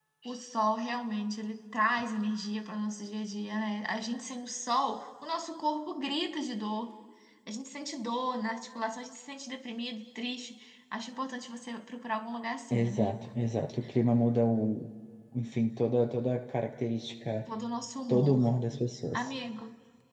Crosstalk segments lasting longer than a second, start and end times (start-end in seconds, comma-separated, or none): none